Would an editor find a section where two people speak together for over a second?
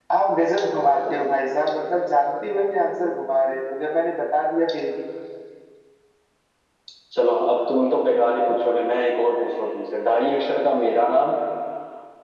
No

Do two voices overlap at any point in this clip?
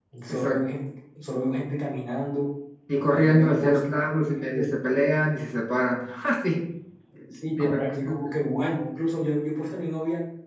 Yes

